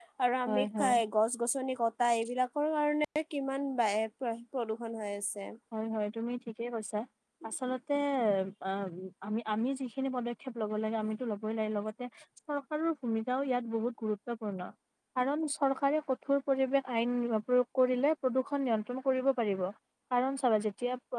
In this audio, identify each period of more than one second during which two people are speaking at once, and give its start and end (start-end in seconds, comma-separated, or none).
none